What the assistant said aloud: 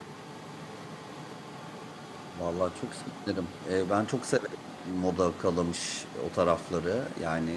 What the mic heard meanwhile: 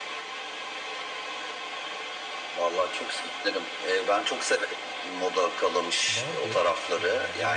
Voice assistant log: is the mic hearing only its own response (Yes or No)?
No